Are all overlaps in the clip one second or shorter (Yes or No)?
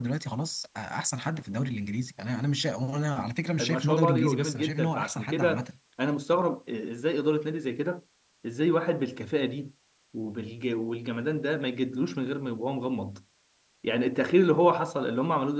No